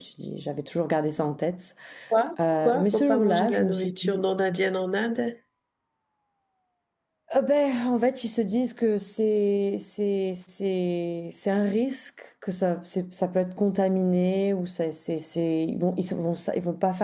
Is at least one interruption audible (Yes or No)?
Yes